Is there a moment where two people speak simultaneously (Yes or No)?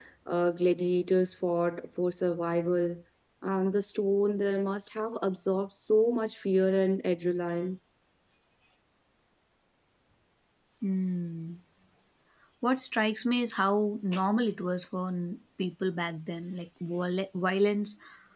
No